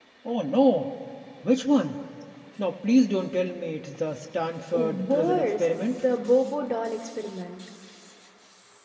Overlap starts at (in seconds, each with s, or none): 4.7 s